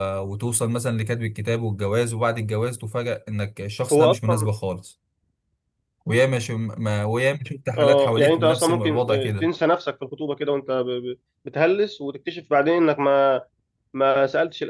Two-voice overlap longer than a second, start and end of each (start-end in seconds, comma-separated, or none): 7.8-9.5